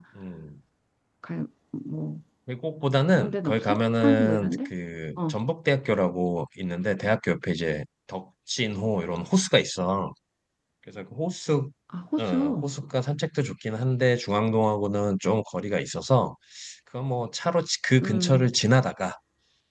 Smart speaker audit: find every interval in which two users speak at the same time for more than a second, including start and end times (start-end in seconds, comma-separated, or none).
3.2-4.7